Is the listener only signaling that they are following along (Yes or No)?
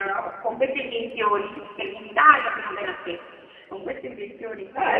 No